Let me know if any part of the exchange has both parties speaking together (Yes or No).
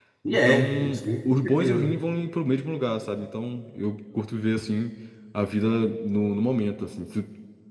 Yes